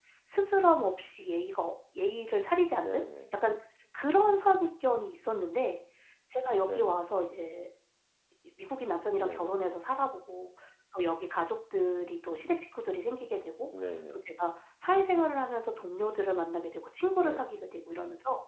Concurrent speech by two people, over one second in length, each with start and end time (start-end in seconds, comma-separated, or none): none